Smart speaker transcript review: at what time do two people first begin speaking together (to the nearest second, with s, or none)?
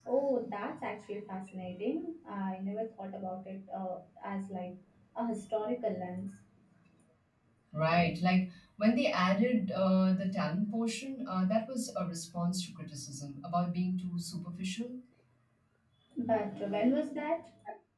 none